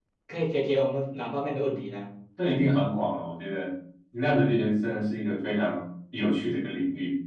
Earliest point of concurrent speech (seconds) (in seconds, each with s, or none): none